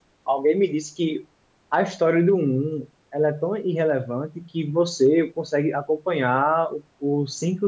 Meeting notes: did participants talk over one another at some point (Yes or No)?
No